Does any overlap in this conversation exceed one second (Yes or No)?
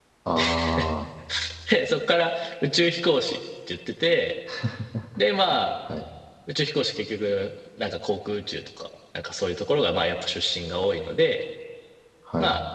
No